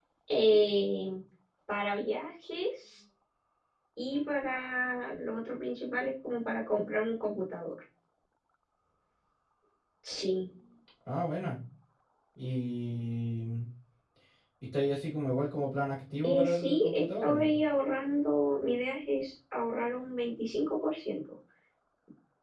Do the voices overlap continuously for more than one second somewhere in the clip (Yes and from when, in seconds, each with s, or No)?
Yes, from 16.2 s